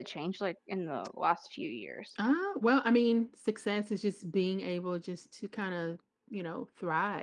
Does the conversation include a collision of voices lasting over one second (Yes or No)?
No